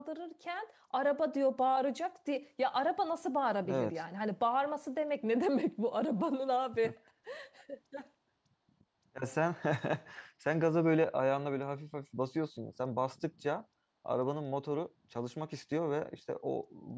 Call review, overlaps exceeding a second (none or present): none